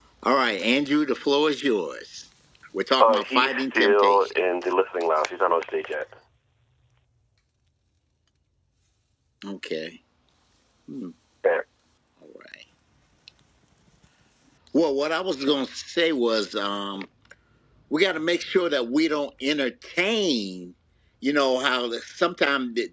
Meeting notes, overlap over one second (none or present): present